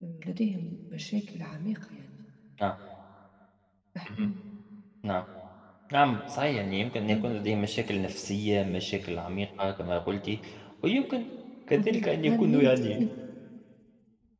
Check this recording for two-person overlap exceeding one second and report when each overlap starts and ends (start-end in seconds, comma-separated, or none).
11.8-13.0